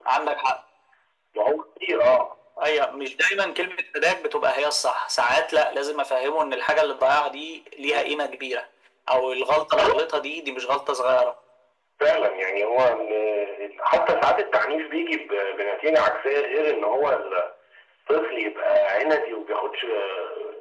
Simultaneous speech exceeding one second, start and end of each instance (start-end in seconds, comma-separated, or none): none